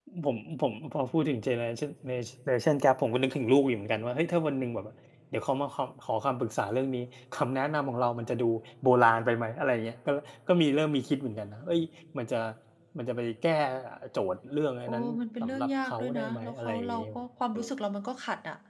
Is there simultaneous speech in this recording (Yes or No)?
Yes